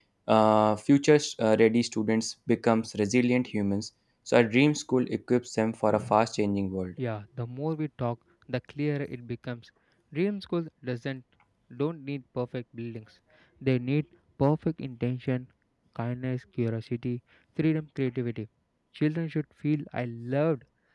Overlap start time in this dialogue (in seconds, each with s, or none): none